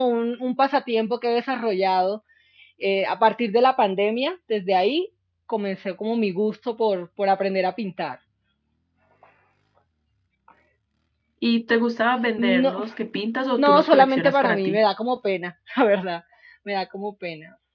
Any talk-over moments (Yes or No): Yes